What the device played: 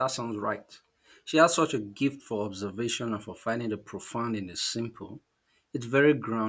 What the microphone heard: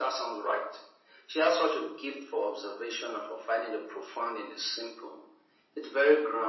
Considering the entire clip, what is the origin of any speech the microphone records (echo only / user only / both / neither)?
echo only